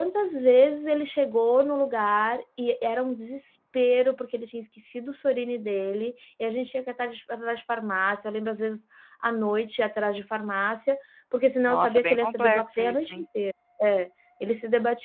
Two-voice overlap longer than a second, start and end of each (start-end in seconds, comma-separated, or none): 11.7-13.2